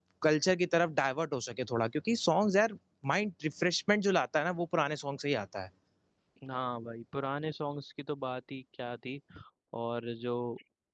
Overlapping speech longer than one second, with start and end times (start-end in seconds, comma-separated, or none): none